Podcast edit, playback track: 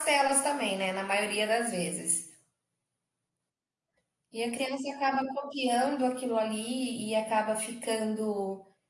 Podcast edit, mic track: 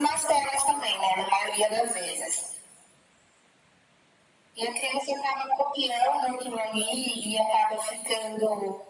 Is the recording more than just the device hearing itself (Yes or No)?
No